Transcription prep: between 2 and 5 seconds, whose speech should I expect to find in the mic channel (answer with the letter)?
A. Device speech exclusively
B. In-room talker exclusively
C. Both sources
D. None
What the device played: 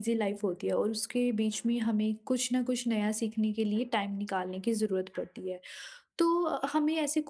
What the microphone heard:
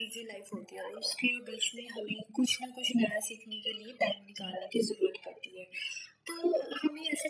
A